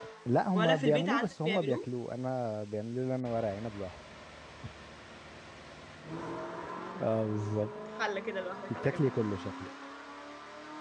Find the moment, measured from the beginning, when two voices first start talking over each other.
0.6 s

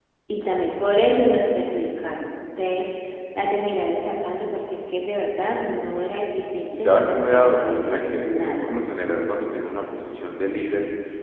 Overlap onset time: 6.7 s

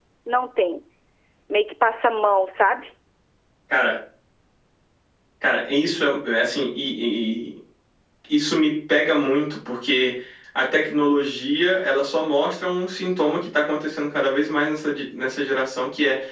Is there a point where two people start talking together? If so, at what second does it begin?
none

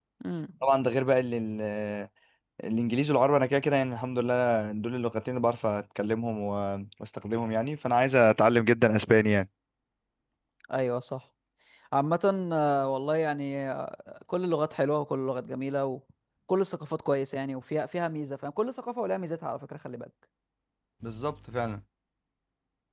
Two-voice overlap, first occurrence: none

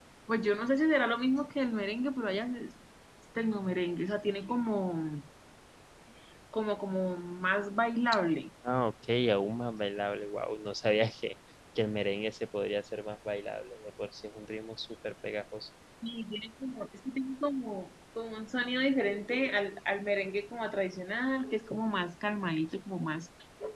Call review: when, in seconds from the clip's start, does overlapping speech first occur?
none

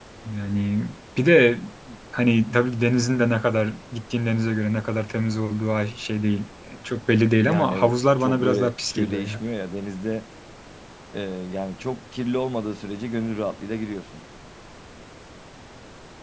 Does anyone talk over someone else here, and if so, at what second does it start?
7.4 s

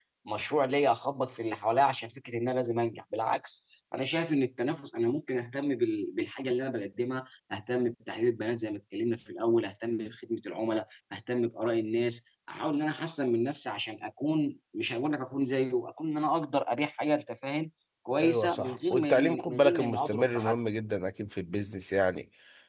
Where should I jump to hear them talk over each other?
18.2 s

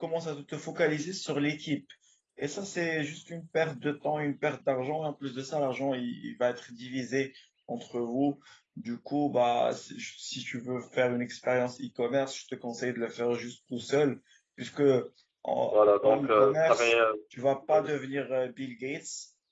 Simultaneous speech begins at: 15.7 s

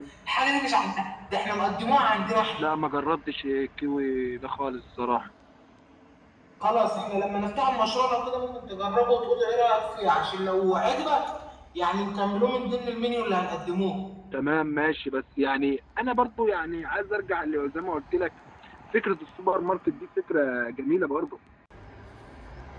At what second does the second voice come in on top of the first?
none

